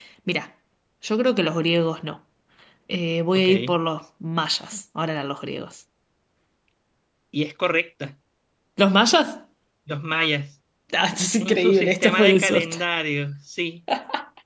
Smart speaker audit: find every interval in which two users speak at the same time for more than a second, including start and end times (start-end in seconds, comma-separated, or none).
11.4-12.8